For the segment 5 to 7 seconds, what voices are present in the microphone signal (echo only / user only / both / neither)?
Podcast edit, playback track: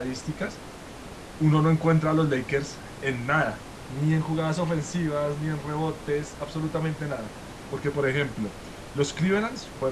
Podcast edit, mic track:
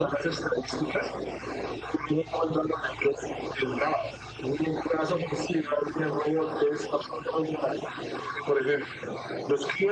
echo only